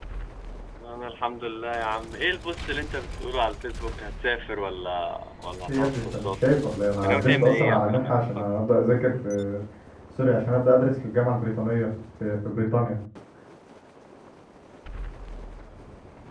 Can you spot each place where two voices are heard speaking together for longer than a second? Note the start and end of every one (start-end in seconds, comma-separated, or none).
5.7-8.5